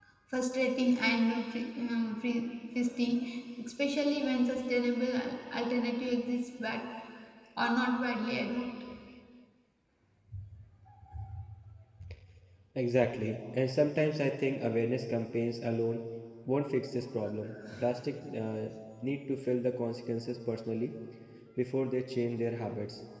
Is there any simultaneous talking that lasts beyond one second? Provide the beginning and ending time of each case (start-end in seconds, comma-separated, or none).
none